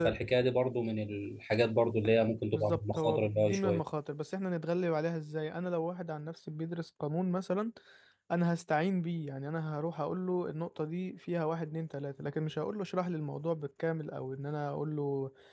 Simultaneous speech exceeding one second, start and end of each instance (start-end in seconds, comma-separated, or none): 2.5-3.8